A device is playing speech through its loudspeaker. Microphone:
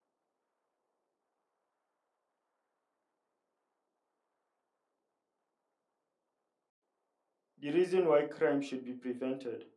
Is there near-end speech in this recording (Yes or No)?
Yes